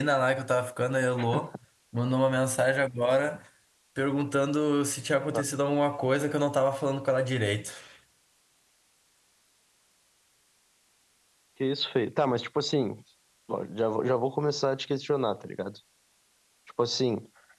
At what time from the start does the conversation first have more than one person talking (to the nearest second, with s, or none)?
none